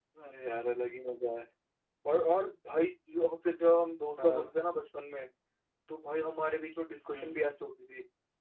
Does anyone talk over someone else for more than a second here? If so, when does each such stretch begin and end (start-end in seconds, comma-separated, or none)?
none